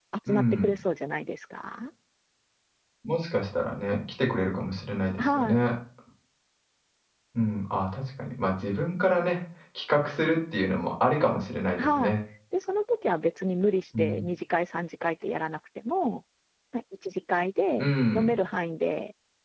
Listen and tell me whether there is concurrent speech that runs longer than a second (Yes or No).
No